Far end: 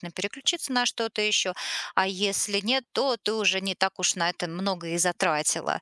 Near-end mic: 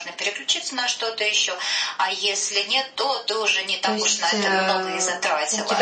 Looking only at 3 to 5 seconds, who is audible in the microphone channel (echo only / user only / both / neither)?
both